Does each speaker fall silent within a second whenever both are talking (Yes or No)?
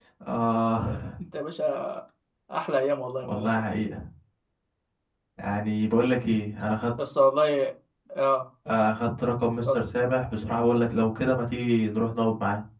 Yes